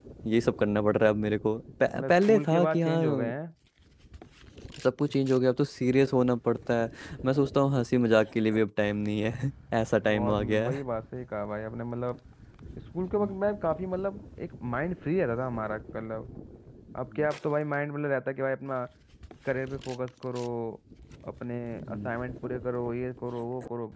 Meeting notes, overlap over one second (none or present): present